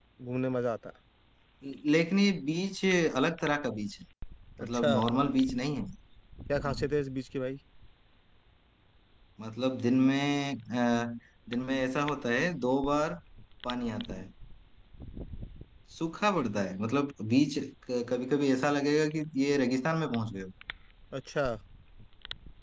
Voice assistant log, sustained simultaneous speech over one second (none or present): none